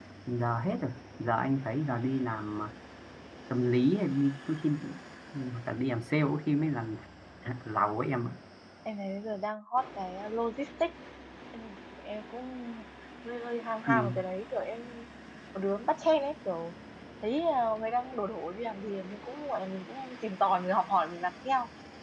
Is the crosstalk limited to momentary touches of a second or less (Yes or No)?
Yes